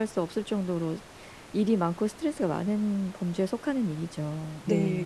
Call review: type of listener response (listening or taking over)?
taking over